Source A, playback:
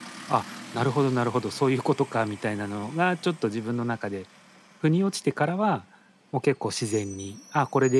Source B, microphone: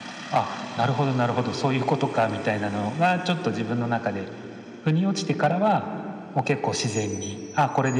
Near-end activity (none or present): none